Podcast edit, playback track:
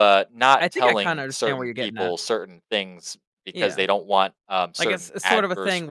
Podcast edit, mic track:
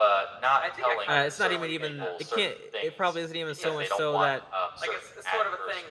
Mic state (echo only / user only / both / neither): both